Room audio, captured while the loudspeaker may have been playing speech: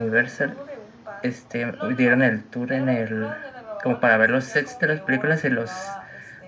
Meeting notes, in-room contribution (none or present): present